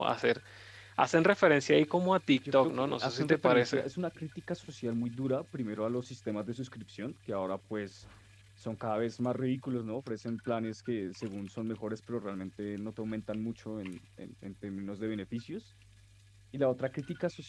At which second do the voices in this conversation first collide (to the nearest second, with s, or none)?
2 s